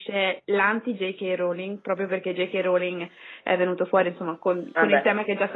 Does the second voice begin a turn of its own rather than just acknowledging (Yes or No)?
No